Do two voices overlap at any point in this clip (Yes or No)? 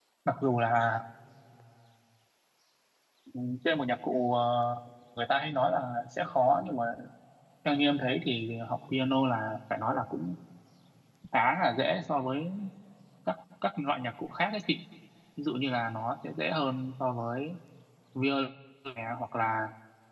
No